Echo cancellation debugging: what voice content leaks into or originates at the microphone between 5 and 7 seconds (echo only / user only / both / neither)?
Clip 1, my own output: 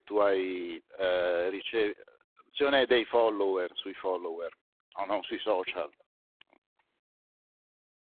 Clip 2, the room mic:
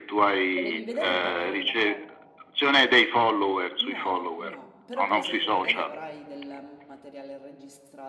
both